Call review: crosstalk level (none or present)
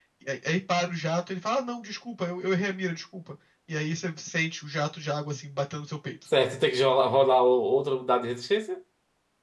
none